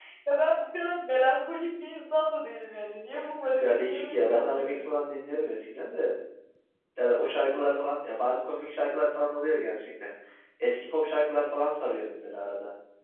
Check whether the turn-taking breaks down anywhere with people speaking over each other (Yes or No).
Yes